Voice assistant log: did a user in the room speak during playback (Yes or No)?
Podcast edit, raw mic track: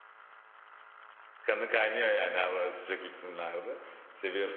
Yes